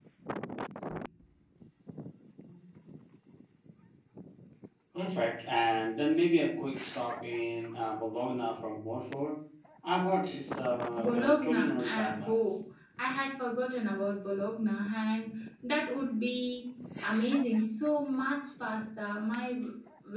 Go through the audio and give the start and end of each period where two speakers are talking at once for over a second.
11.0-12.6

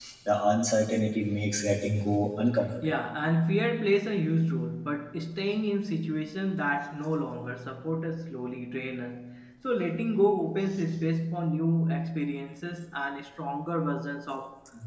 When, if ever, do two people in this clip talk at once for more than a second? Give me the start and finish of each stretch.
none

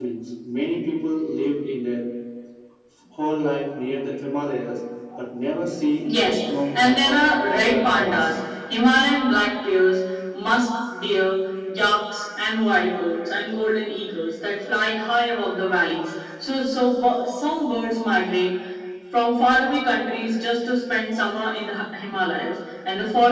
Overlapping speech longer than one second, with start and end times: 6.7-8.3

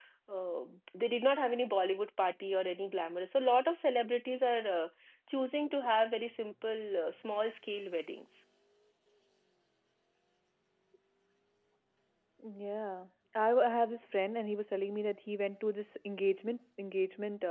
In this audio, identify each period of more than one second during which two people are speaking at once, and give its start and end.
none

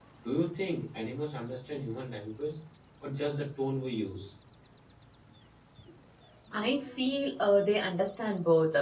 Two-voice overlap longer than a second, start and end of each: none

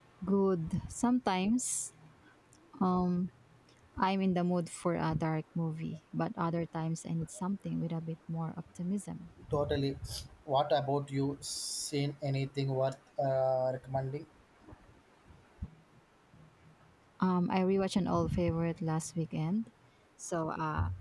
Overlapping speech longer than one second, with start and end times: none

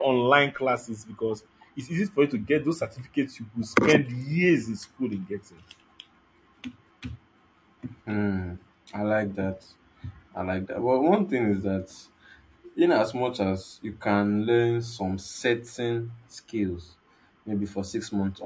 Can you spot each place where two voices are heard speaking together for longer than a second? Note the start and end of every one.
none

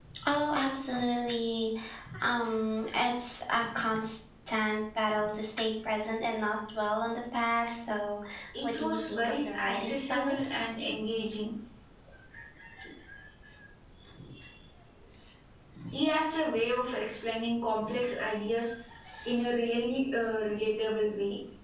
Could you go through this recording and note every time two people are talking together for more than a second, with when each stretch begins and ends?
8.6-10.3

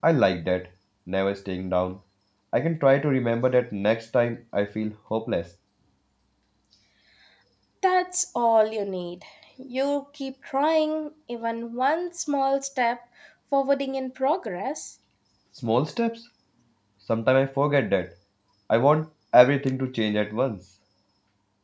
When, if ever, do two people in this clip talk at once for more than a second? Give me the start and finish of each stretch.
none

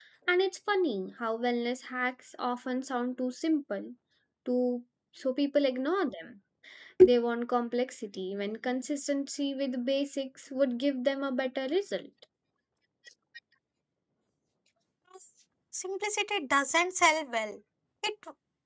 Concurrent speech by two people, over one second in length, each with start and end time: none

